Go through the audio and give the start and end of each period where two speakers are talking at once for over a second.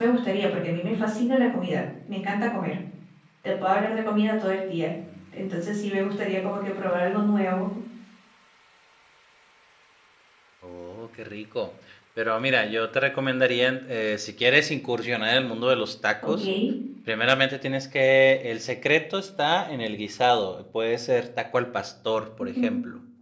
none

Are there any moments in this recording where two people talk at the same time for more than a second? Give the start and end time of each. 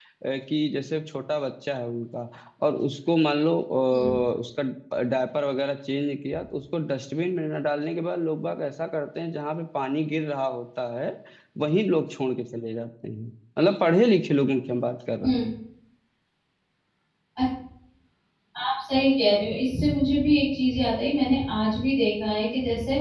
none

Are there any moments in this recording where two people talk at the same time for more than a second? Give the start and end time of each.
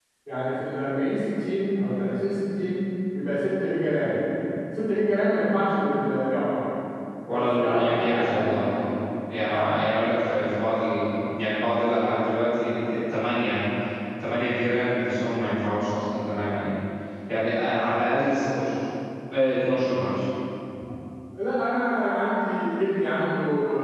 7.3-8.6

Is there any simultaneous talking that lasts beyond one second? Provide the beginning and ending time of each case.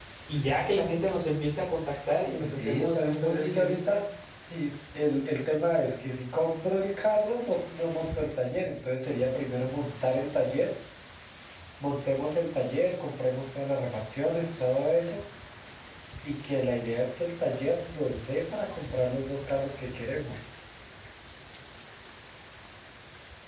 2.4-4.0

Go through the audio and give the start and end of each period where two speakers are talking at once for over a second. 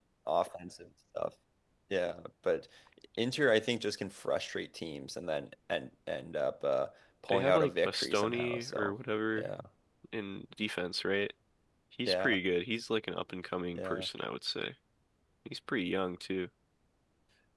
7.3-8.9

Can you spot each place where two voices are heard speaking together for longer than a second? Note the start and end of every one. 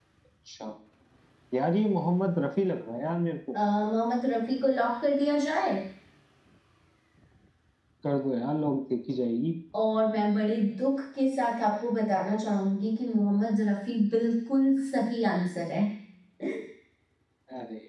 none

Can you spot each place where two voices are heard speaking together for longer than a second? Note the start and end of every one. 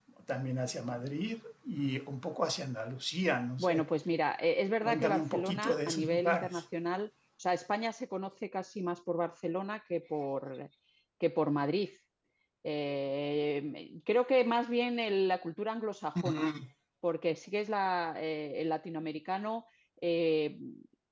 4.8-6.6

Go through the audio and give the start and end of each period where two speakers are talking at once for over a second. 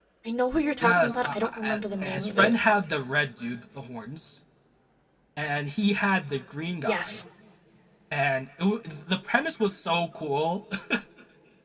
0.8-2.5

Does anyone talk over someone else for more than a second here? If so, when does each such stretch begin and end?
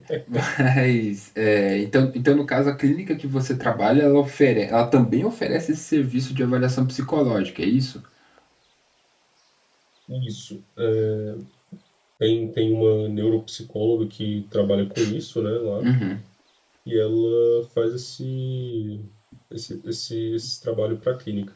none

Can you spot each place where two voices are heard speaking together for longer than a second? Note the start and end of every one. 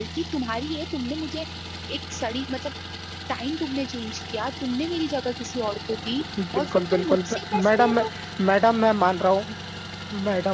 6.5-8.0

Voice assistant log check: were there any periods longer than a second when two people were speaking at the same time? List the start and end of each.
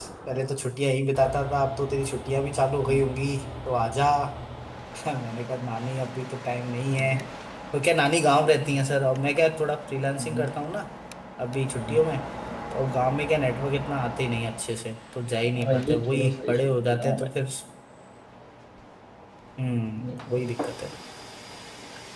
15.5-17.3

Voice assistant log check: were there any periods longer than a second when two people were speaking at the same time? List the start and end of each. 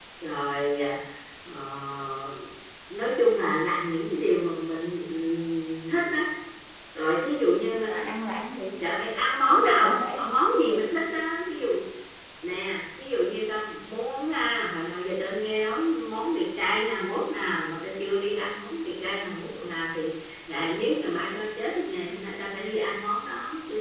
9.5-10.9

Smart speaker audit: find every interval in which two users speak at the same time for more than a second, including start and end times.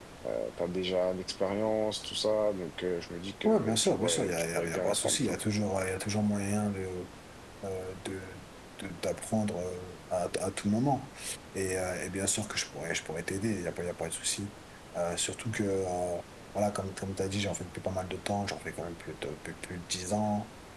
3.5-5.4

